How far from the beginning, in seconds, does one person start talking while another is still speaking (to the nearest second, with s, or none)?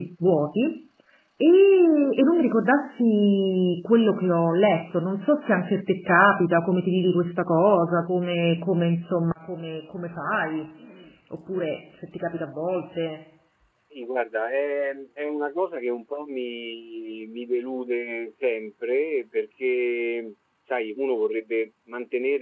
none